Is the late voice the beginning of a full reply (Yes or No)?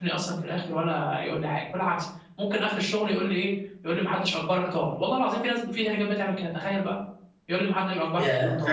Yes